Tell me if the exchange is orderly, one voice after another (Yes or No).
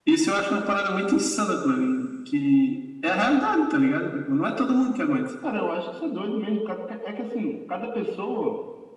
Yes